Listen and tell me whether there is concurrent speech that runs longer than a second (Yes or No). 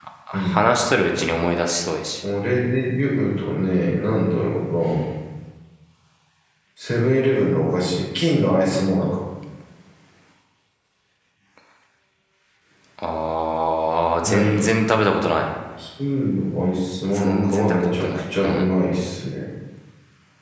Yes